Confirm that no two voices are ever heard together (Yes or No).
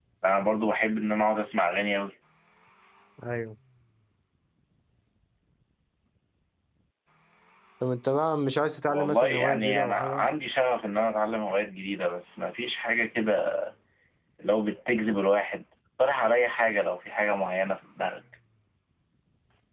No